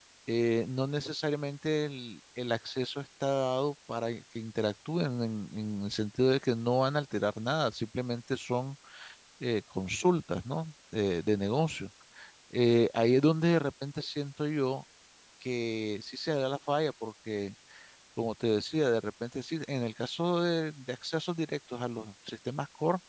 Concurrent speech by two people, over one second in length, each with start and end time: none

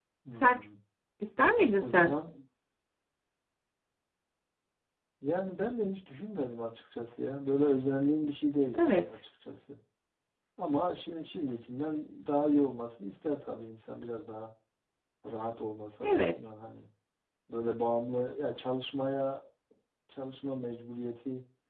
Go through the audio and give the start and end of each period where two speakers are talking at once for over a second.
none

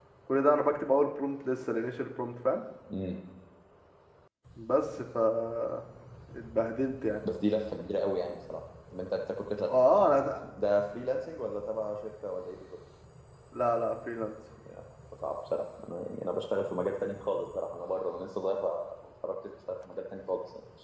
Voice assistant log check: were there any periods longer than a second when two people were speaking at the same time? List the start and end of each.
none

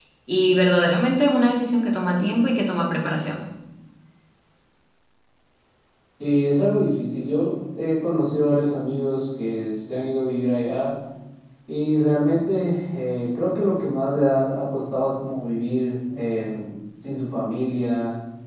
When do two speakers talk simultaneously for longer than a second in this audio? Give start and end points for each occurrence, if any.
none

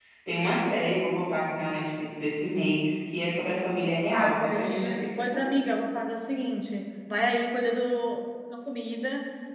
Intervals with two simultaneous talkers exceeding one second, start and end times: 4.1-5.4

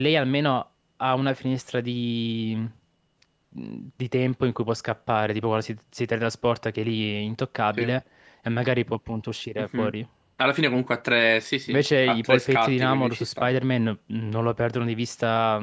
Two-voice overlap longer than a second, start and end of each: 11.7-13.5

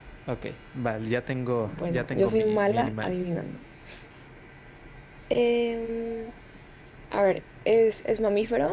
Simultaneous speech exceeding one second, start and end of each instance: 1.7-3.2

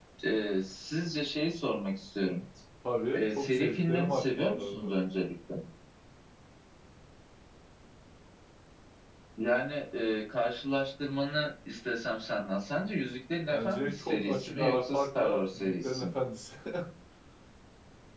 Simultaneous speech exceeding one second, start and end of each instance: 3.1-4.9, 13.5-16.1

